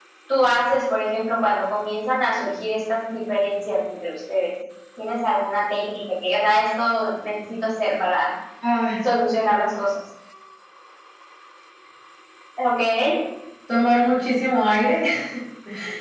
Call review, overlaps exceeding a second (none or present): none